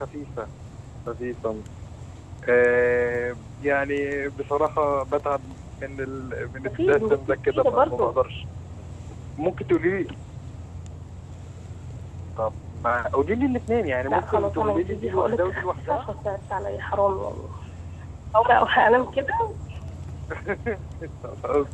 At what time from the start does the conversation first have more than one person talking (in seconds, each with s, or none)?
6.7 s